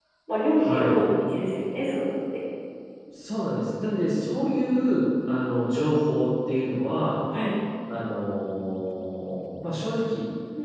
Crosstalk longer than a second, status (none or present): none